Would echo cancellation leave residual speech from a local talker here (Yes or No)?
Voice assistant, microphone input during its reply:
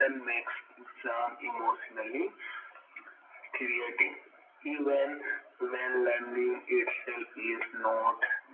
No